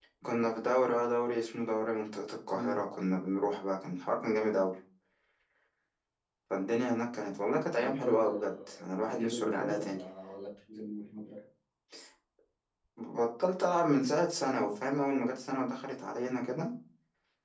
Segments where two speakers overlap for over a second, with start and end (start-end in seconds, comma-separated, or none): 7.7-10.0